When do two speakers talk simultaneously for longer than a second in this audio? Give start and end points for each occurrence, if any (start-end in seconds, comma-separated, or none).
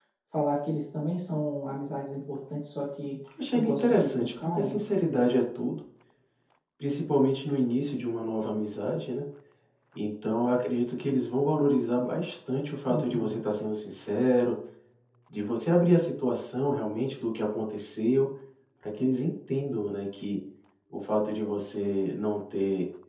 3.5-4.8